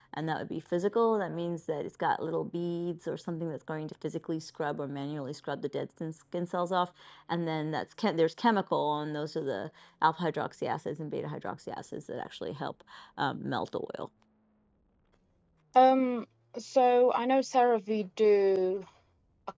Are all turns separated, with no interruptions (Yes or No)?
Yes